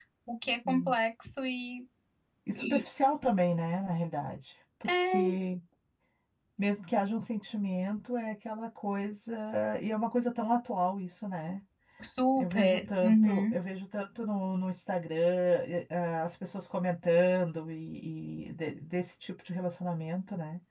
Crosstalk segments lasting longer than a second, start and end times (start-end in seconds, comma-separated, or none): 12.4-13.6